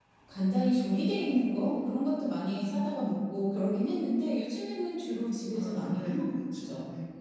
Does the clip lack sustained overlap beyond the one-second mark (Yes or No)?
No